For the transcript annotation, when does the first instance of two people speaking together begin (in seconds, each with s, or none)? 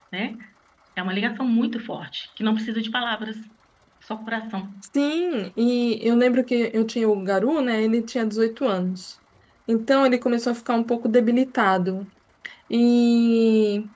none